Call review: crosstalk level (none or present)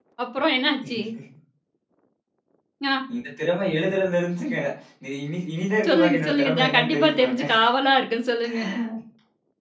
present